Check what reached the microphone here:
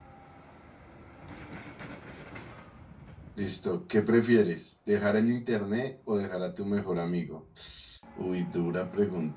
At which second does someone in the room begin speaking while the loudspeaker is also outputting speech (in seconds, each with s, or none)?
3.3 s